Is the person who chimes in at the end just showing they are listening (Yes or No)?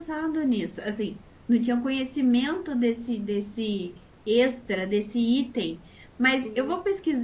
Yes